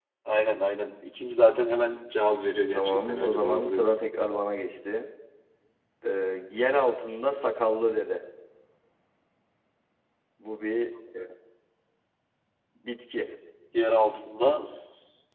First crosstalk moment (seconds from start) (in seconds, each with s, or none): 2.7 s